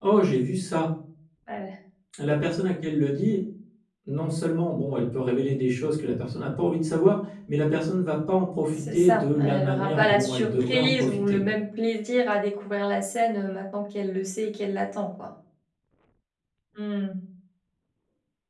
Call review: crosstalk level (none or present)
present